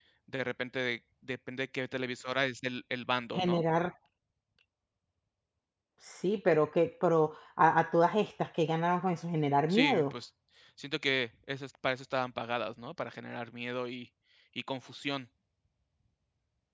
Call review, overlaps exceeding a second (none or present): none